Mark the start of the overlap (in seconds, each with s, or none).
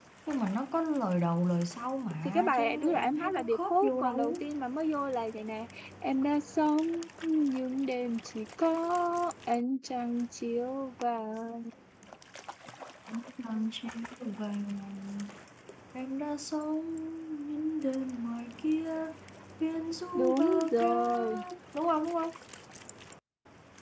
2.2 s